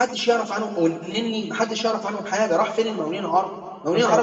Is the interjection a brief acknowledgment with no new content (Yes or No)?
Yes